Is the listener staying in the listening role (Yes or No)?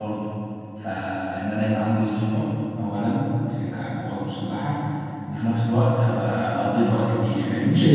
No